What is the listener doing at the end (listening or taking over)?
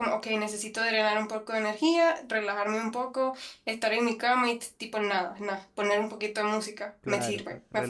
taking over